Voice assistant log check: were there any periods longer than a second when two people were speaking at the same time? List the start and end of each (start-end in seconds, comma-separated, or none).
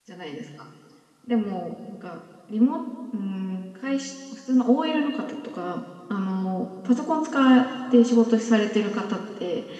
none